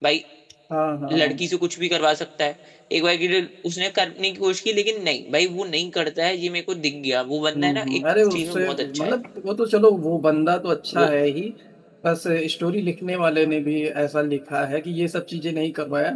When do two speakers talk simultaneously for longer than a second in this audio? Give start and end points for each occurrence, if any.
7.6-9.1

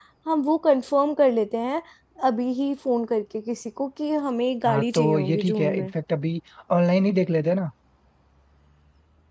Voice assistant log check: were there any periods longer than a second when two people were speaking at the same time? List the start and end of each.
4.6-5.9

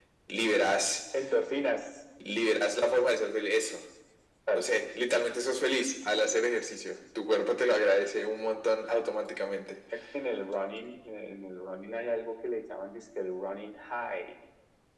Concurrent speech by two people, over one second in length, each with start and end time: none

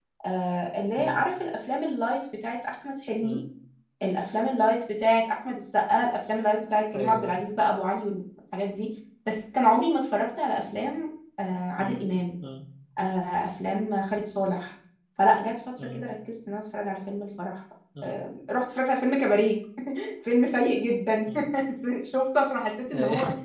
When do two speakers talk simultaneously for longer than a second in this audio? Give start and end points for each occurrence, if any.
none

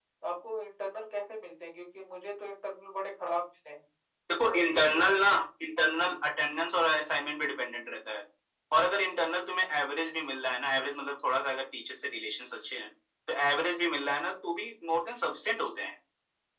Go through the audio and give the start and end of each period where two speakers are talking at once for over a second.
none

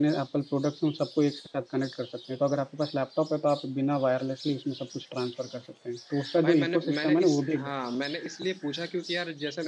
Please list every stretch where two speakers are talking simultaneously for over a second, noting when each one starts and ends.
6.4-7.7

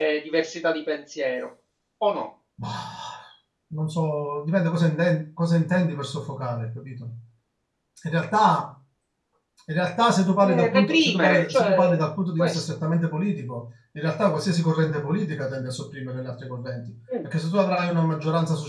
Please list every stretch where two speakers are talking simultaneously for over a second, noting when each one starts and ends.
10.4-12.0

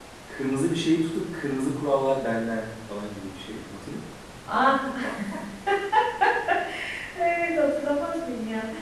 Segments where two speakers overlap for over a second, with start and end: none

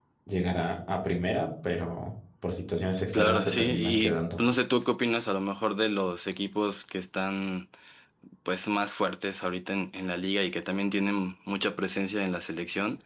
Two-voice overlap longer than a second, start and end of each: 3.1-4.4

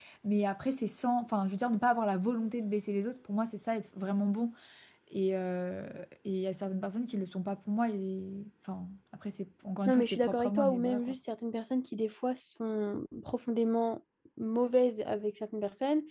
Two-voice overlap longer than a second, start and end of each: 9.9-11.1

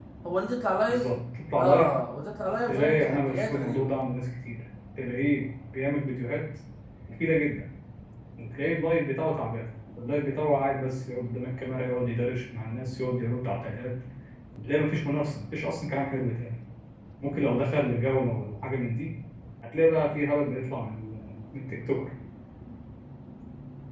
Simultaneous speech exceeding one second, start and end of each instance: 2.7-3.9

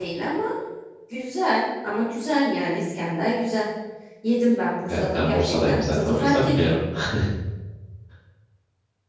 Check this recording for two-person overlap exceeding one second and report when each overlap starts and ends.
4.9-6.7

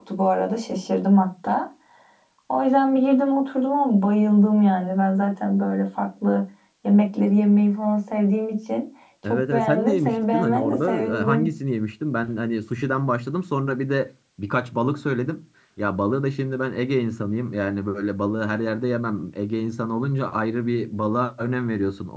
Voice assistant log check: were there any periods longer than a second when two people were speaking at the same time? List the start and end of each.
9.3-11.5

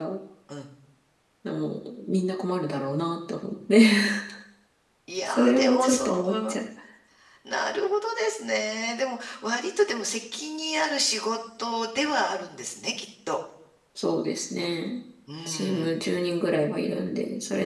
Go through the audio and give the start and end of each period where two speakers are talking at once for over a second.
5.3-6.5

